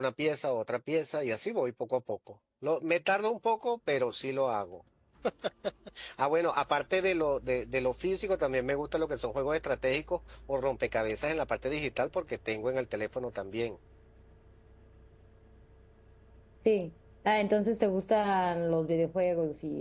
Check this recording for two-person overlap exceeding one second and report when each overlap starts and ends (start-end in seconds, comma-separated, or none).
none